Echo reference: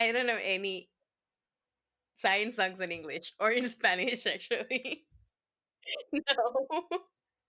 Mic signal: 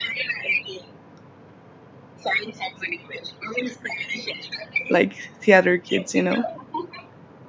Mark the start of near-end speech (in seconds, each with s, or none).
4.9 s